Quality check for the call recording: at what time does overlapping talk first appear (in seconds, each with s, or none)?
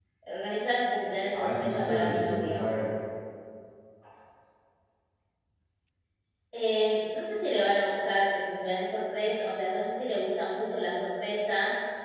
1.3 s